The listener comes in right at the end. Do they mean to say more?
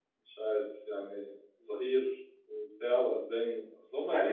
Yes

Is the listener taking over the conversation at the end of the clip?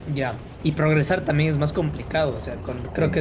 No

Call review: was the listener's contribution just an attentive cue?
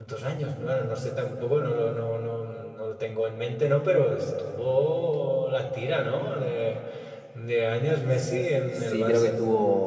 No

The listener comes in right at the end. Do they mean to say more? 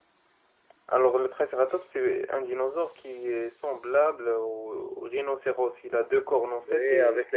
Yes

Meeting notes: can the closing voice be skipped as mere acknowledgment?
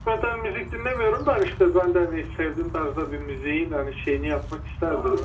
No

